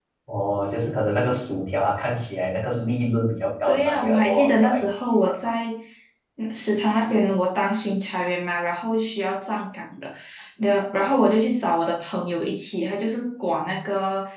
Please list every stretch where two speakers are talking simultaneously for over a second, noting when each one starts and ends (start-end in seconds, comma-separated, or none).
3.7-5.5